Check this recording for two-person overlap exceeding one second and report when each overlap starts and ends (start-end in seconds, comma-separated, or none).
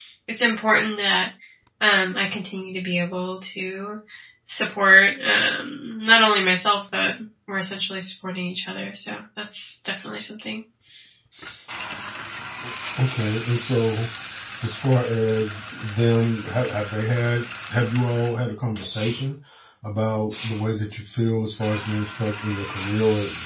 none